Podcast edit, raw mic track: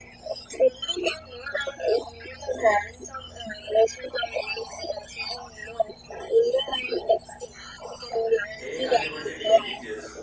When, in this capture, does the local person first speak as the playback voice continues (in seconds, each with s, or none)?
8.6 s